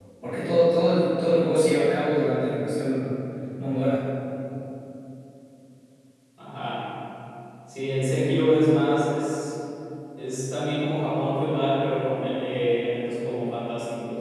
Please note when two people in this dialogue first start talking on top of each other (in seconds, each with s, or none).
none